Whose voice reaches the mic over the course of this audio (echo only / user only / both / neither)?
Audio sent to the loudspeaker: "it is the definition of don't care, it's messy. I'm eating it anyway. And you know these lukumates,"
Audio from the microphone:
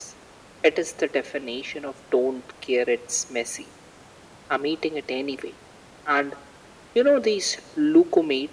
echo only